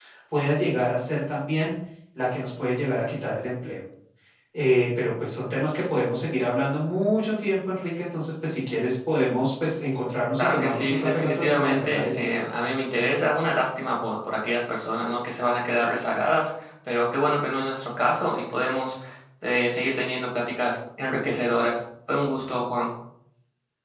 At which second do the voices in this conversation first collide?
10.4 s

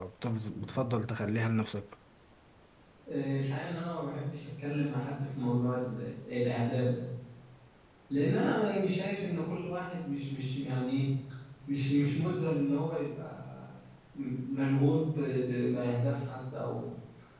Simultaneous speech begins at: none

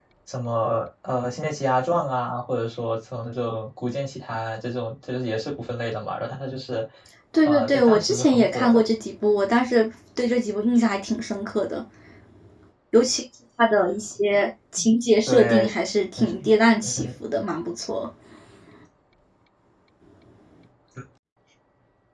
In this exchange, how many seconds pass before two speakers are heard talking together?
7.4 s

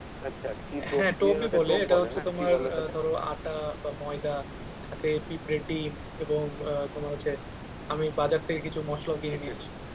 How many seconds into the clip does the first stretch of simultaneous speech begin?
0.9 s

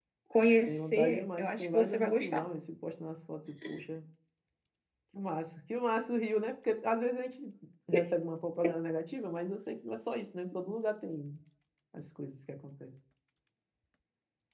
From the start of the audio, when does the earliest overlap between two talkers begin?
0.7 s

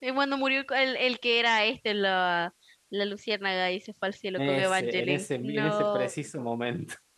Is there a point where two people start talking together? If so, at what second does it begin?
4.4 s

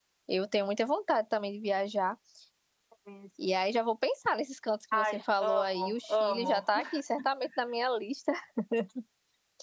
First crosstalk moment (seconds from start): 4.9 s

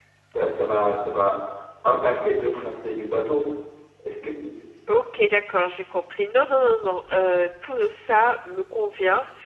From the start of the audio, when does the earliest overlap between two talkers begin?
none

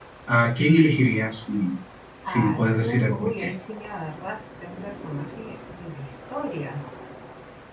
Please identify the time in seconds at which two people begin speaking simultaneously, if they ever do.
2.3 s

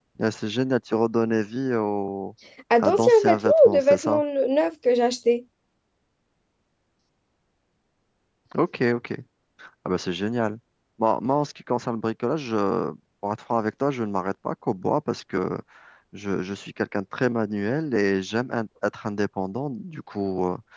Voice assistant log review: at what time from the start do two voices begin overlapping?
2.8 s

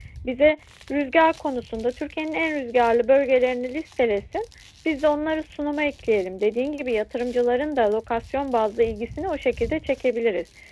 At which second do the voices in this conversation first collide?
none

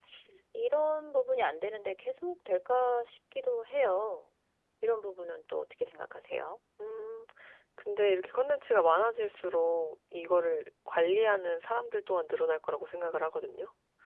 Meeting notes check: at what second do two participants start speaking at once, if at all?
none

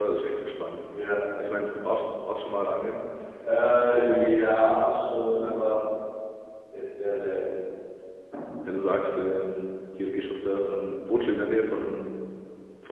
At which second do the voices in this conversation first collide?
none

